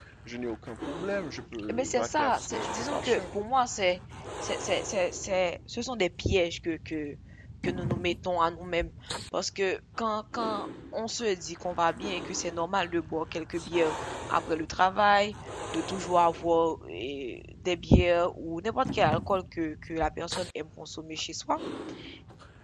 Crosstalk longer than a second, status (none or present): present